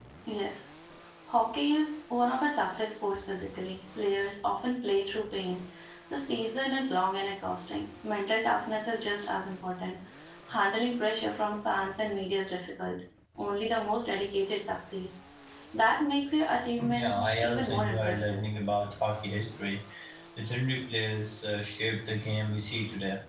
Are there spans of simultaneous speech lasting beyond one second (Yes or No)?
Yes